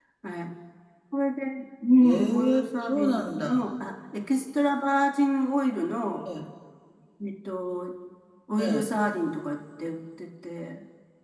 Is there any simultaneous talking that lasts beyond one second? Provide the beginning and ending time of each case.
2.0-3.5

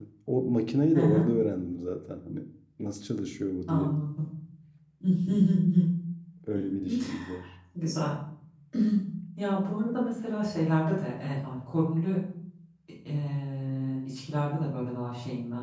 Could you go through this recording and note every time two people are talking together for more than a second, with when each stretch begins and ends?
none

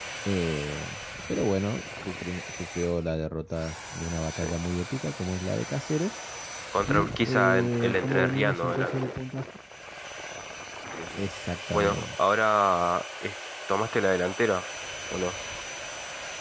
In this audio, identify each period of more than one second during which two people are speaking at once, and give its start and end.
6.9-9.0

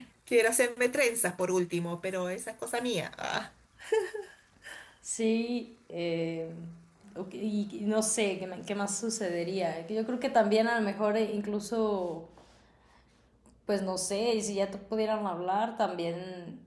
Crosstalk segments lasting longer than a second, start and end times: none

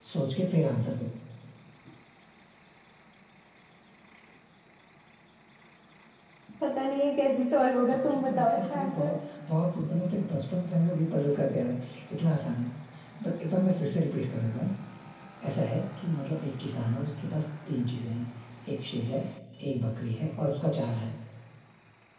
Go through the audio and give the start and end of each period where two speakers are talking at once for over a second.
7.9-9.1

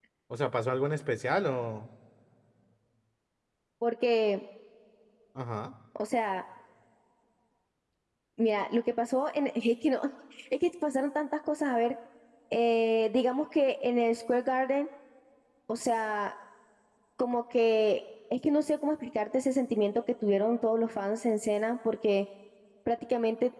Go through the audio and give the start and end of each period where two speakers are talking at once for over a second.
none

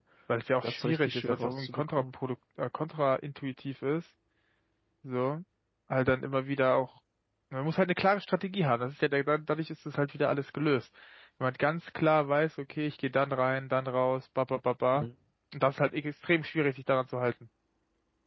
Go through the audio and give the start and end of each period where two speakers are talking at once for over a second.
0.6-2.0

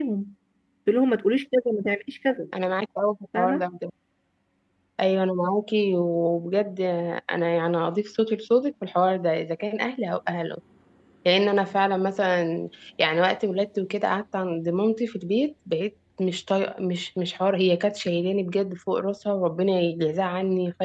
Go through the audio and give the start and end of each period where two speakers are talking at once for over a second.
none

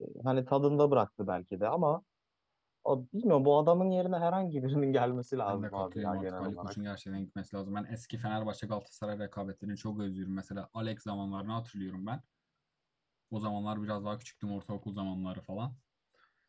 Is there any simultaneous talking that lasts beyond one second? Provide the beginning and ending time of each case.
5.5-6.7

